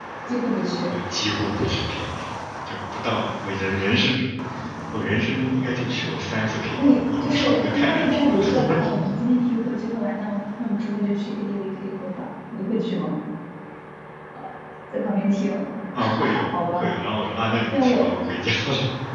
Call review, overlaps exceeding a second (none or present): present